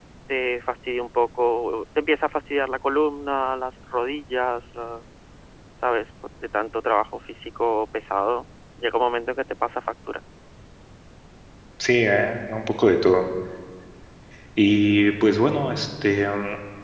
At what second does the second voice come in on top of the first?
none

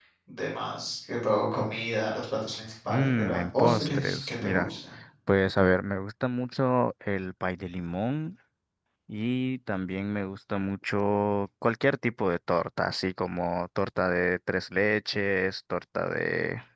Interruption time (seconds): 2.9 s

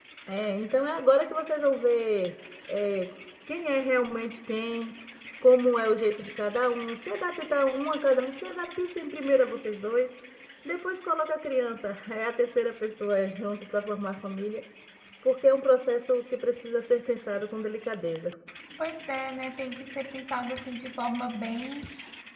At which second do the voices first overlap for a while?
none

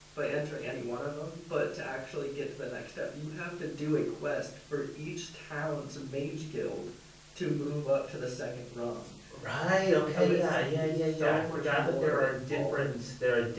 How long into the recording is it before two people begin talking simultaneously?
10.2 s

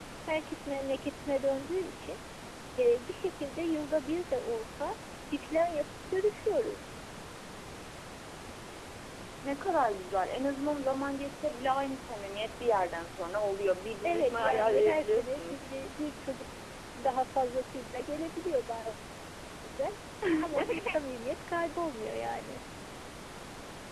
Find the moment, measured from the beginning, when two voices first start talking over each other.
14.0 s

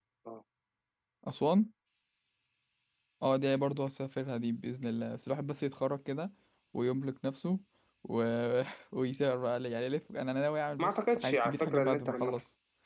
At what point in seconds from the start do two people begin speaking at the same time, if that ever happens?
10.8 s

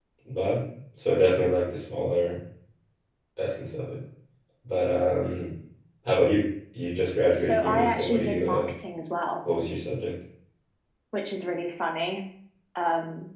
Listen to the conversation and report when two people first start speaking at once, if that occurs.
7.4 s

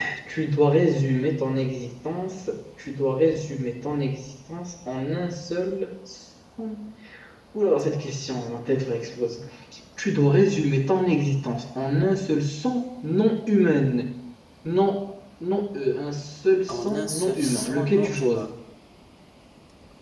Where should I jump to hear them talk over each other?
16.7 s

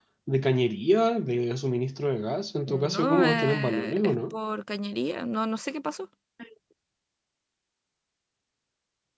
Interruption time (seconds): 2.7 s

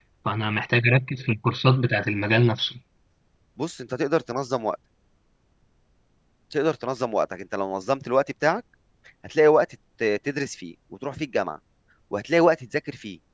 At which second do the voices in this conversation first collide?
none

